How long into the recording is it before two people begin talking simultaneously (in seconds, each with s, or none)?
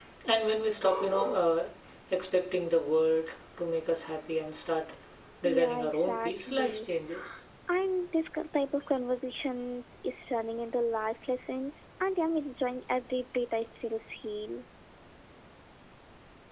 5.4 s